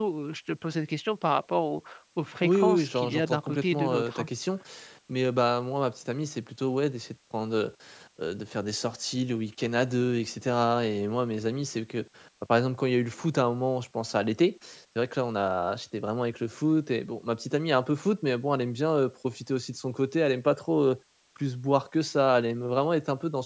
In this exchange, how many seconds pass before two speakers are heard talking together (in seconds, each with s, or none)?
2.4 s